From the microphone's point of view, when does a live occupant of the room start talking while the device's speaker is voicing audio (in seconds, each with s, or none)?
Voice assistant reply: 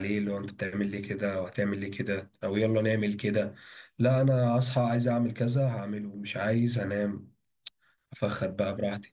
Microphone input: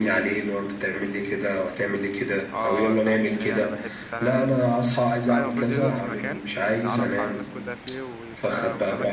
2.5 s